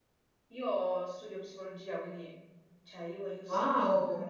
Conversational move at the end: listening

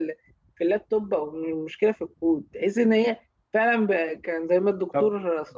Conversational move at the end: taking over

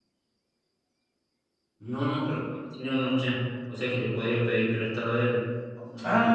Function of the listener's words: taking over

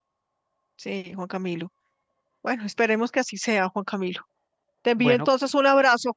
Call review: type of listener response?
listening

